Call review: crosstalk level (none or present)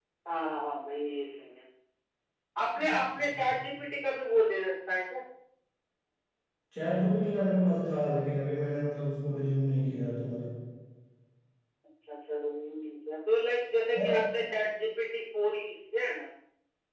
none